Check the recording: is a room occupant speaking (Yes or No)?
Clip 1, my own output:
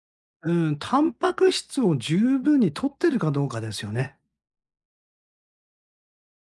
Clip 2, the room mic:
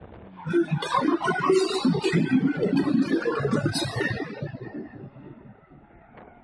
No